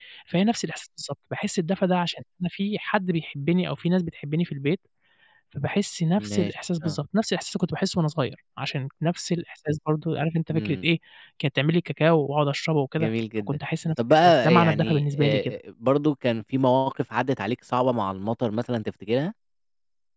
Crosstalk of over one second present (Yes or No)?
Yes